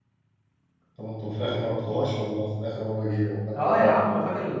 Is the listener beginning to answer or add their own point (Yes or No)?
Yes